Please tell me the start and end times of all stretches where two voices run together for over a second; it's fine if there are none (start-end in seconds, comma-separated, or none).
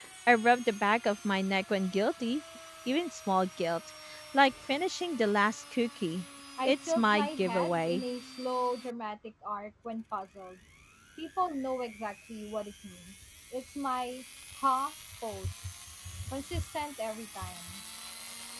6.7-8.0